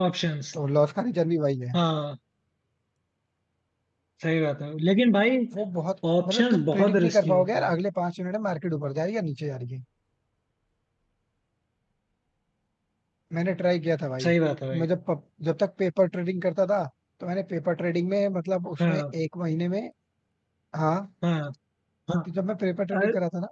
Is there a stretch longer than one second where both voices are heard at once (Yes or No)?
Yes